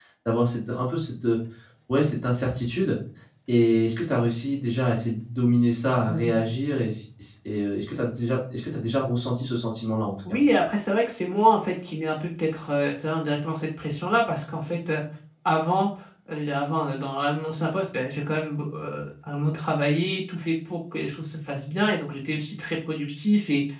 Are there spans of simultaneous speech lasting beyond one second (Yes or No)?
No